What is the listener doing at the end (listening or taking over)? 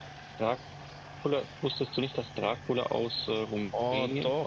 taking over